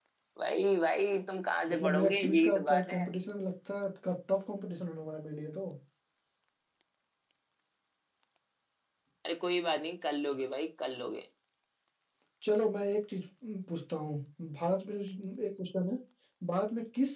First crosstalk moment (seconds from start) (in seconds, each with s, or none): 1.7 s